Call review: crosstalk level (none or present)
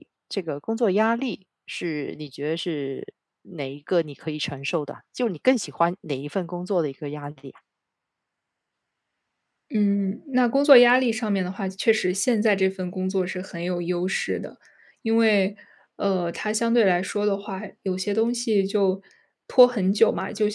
none